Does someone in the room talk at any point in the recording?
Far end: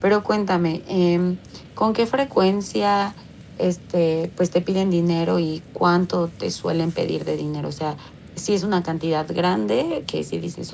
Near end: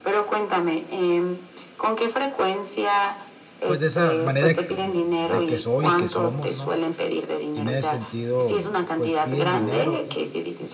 Yes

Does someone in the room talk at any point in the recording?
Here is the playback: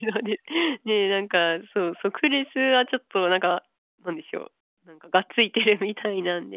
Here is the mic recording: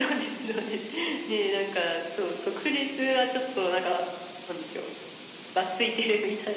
No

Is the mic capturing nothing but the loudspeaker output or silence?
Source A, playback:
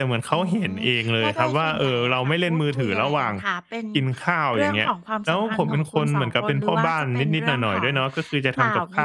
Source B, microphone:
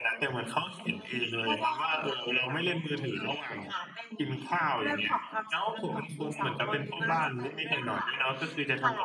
Yes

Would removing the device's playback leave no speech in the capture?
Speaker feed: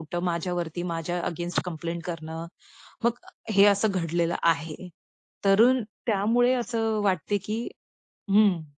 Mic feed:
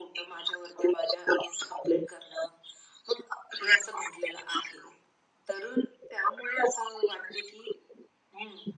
Yes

